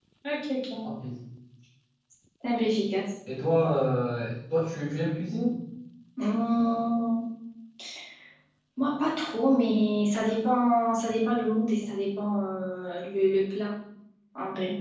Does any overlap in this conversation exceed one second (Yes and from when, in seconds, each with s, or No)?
No